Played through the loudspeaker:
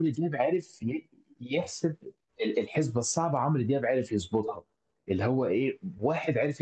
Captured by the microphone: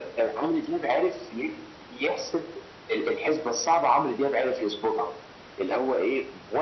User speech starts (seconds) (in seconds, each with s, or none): none